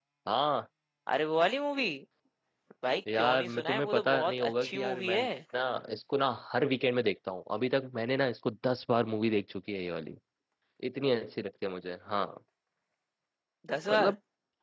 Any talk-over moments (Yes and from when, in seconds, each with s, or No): Yes, from 3.1 s